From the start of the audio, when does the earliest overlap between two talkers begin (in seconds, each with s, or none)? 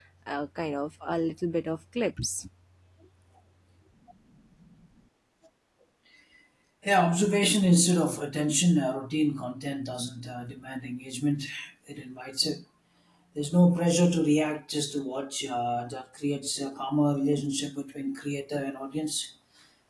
none